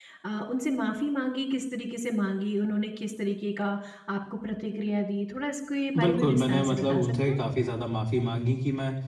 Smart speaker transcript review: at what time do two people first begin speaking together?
6.0 s

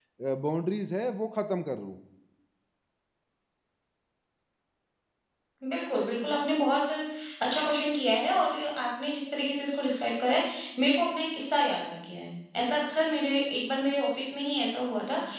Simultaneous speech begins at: none

